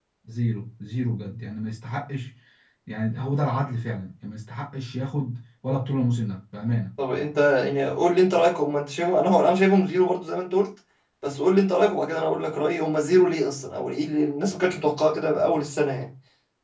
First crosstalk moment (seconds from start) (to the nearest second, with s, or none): none